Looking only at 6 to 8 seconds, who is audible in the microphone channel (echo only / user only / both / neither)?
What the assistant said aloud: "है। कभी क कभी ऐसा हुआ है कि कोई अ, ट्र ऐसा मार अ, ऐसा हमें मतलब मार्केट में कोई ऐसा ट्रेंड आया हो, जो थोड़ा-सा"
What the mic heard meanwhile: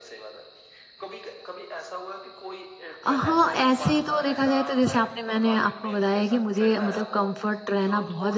both